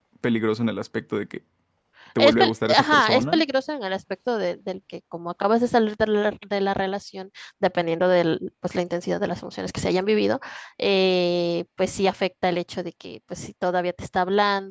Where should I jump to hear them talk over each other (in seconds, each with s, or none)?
2.2 s